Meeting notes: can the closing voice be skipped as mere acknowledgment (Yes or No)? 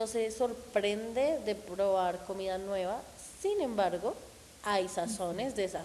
Yes